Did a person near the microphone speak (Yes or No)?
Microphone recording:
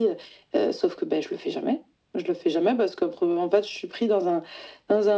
No